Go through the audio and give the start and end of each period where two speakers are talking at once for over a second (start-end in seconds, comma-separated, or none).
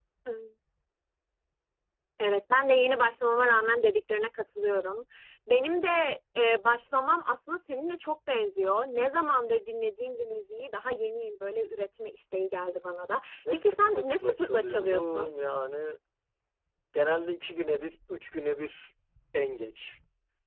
13.5-15.3